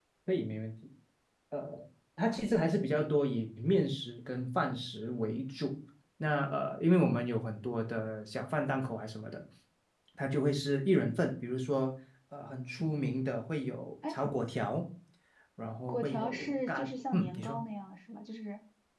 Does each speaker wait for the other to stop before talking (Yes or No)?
No